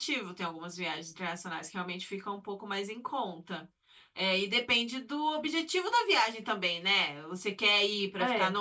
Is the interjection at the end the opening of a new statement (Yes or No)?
No